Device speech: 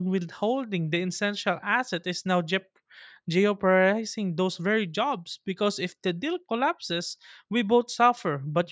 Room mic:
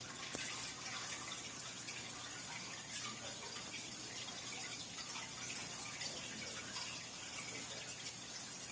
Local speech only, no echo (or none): none